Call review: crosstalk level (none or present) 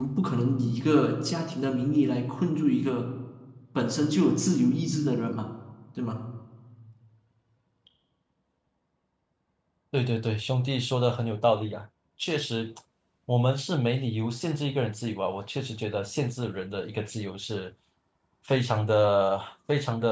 none